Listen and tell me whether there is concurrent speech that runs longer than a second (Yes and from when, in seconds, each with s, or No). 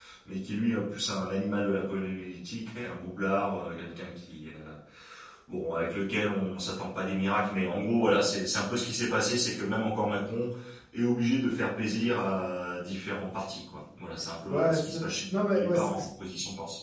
Yes, from 14.5 s